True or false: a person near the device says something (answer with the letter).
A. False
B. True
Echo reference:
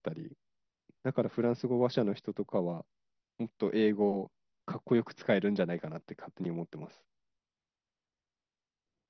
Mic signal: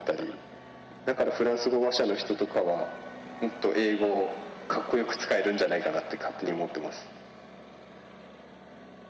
A